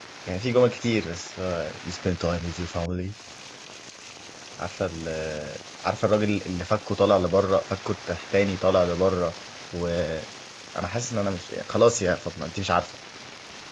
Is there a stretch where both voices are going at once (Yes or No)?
No